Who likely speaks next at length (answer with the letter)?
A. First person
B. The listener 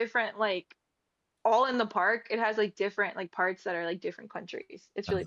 B